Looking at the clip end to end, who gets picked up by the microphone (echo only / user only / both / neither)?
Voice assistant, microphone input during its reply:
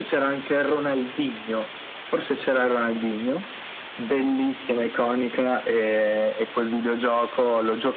echo only